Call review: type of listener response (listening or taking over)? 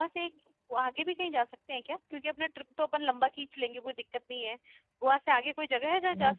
taking over